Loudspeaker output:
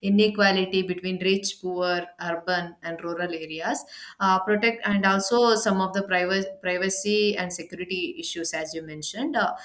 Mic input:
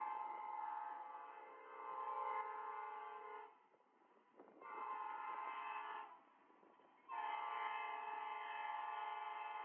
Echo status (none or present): none